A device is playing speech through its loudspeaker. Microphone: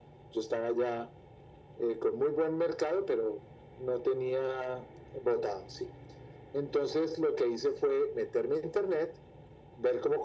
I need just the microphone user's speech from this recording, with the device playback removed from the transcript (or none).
none